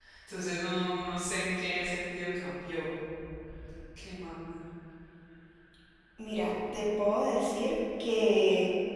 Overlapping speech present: No

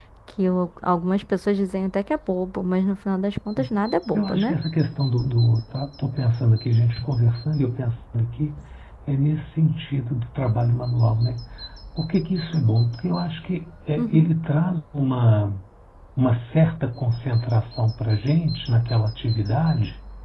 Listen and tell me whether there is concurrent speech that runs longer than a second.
No

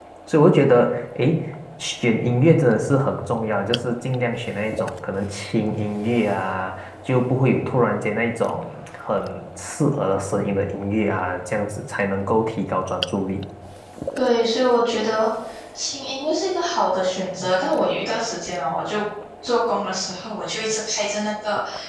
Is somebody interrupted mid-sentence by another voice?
No

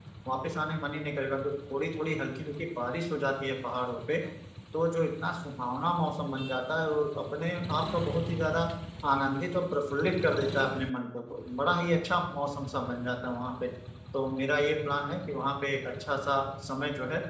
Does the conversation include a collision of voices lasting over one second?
No

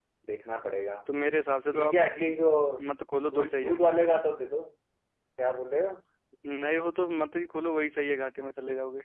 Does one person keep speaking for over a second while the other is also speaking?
No

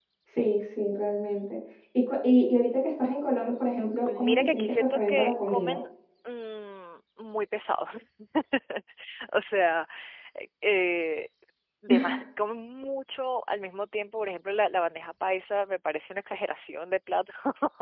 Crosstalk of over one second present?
Yes, from 4.1 s

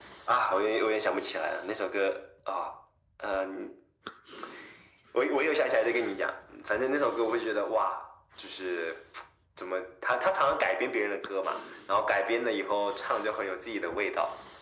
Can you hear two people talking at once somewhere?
No

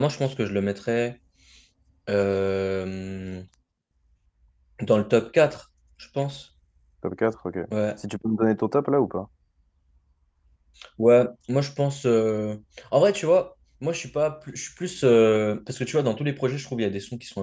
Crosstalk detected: No

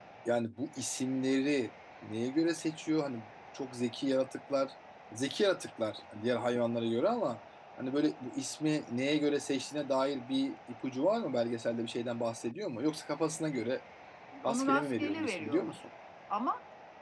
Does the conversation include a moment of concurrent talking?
Yes, from 14.5 s

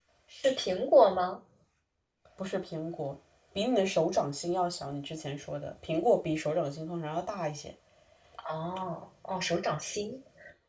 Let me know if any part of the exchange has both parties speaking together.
No

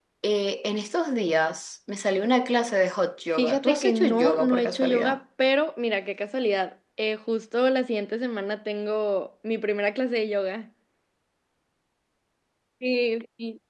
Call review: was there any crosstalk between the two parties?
Yes, from 3.4 s

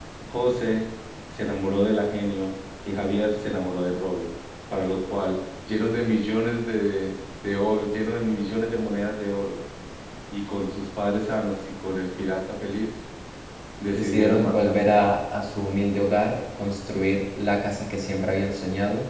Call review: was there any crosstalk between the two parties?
Yes, from 13.9 s

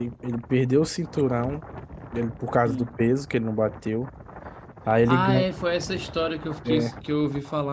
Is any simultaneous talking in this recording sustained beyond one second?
No

